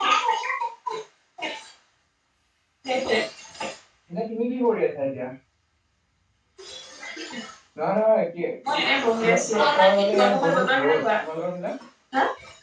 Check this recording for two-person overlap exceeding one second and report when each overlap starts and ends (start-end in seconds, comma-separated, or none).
9.2-11.0